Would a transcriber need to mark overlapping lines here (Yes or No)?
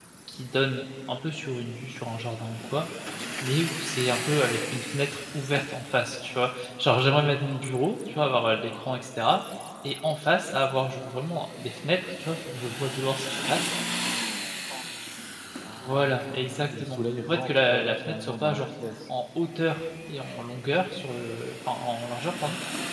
Yes